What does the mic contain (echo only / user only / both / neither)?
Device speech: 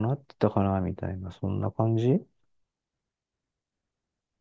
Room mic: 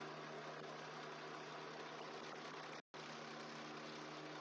neither